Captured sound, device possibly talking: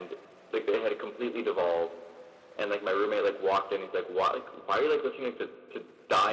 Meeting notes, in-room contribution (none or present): none